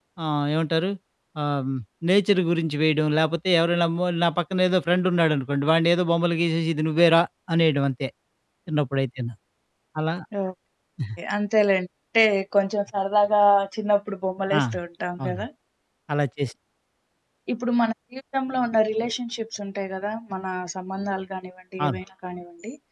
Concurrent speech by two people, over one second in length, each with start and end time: none

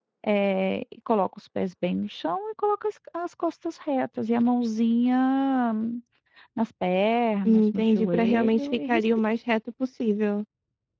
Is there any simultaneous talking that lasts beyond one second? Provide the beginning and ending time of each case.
7.5-9.1

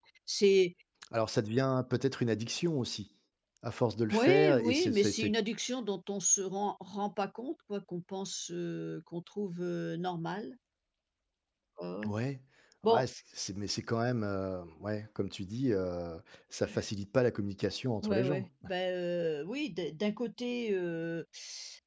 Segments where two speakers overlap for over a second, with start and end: 4.1-5.3

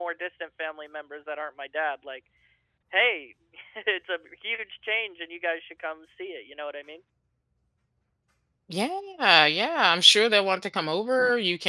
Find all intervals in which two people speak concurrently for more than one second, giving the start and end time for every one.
none

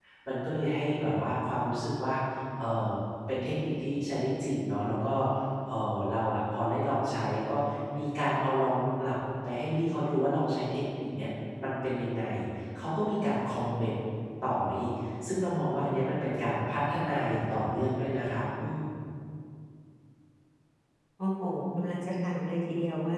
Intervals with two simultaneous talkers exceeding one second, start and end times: none

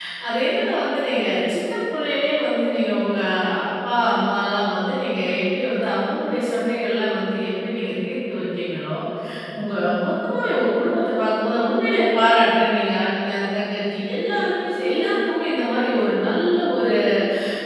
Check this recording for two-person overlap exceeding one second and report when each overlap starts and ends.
none

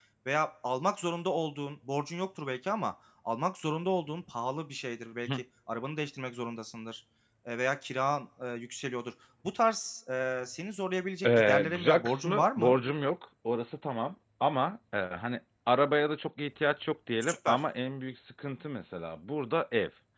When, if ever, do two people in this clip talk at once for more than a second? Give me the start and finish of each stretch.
11.2-12.7

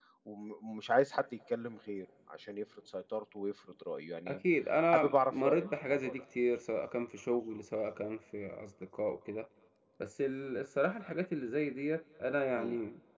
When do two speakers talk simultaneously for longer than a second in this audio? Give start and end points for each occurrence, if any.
4.9-6.2

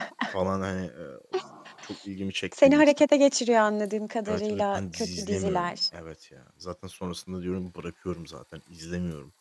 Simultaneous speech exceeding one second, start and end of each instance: 4.3-5.7

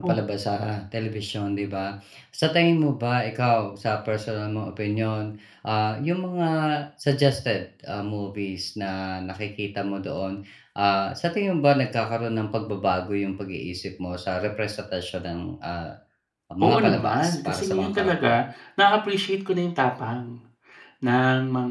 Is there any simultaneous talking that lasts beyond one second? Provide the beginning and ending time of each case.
16.6-18.4

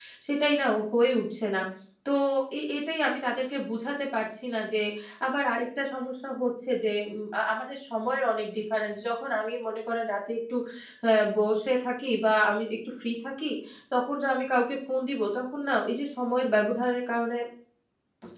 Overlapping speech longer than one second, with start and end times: none

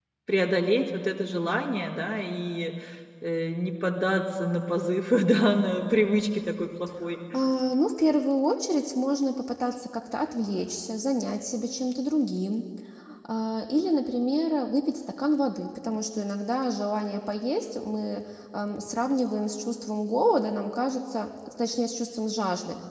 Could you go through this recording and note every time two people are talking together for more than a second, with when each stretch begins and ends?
none

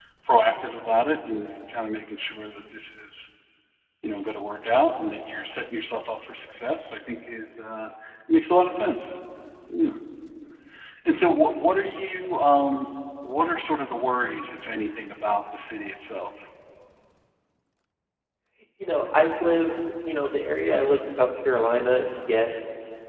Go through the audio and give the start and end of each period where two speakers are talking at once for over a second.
none

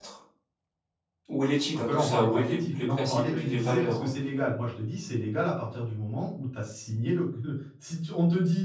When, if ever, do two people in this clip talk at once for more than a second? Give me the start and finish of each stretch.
1.7-4.1

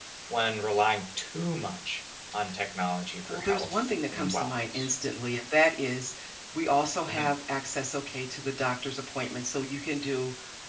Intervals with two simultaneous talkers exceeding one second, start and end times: 3.3-4.9

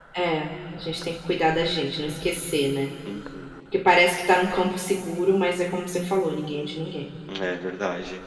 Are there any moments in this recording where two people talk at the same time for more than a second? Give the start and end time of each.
none

